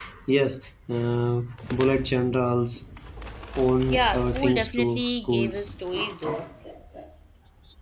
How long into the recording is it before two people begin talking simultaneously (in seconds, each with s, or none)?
3.9 s